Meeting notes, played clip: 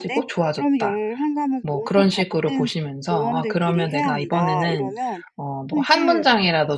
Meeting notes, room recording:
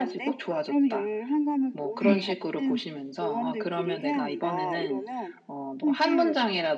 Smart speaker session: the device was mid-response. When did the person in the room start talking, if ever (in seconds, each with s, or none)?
1.9 s